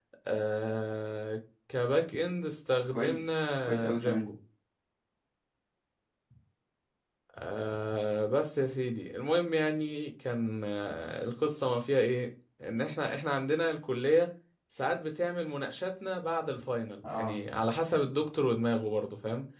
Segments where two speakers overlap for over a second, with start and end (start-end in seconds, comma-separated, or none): 2.9-4.2